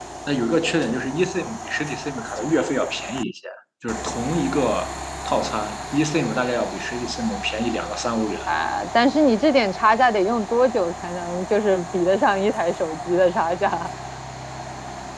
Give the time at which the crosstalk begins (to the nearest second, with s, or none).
none